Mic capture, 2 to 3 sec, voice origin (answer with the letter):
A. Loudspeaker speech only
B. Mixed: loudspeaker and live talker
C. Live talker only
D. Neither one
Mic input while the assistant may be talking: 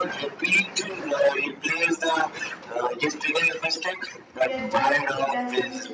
A